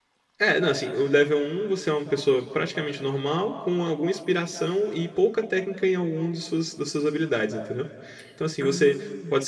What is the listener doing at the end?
listening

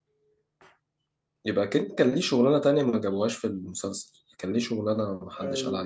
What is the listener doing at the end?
taking over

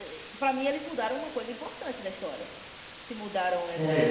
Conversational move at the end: taking over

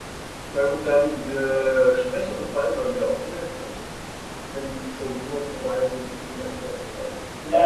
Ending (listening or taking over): taking over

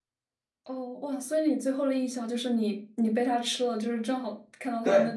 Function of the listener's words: taking over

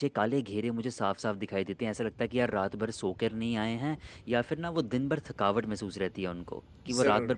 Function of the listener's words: listening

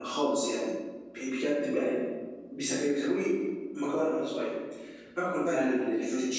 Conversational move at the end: listening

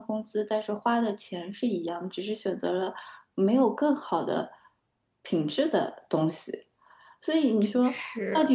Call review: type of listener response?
listening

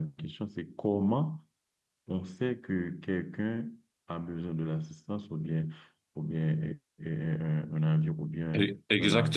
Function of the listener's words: taking over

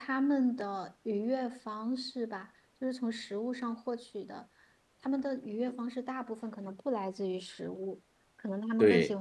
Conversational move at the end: listening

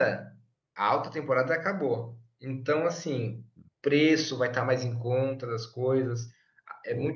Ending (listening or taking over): listening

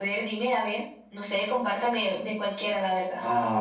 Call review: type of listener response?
taking over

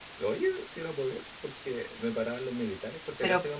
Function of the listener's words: listening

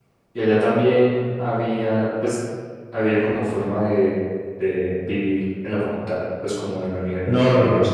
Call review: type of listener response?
taking over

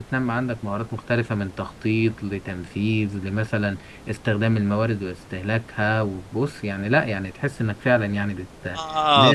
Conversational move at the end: taking over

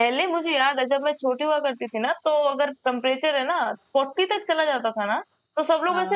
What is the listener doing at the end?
listening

